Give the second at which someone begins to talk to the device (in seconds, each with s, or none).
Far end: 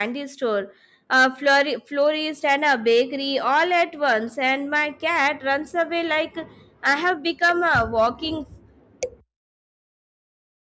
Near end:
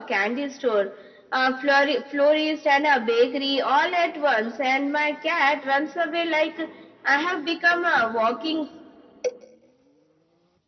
none